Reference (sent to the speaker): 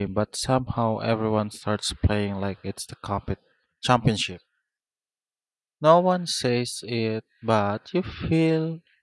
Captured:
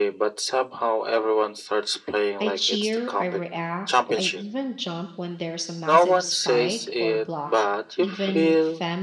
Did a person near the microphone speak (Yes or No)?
Yes